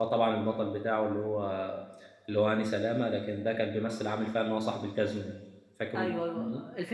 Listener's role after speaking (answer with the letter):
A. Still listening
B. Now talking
B